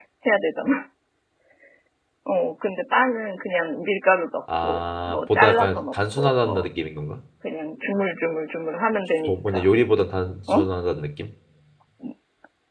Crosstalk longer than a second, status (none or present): present